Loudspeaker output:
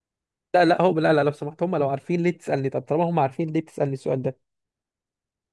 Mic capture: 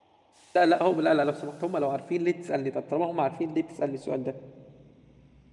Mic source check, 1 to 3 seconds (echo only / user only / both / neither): echo only